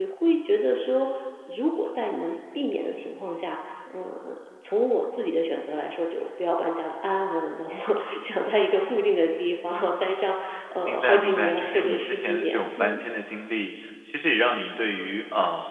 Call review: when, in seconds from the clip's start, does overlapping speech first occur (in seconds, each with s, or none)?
10.8 s